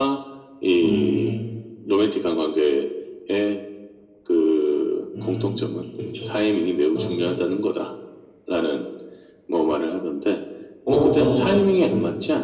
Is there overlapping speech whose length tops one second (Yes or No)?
Yes